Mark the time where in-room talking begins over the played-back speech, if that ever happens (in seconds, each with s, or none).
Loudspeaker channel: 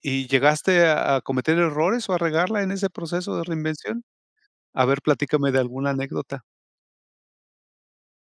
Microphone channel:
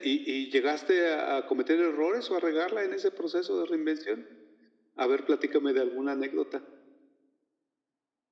none